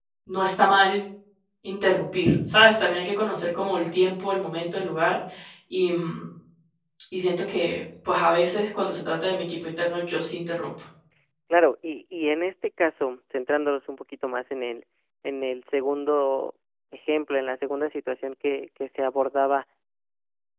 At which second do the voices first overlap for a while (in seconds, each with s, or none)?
none